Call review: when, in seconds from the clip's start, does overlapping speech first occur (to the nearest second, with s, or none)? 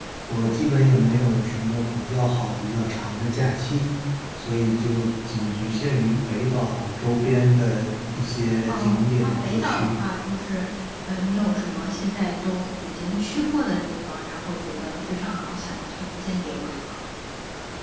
9 s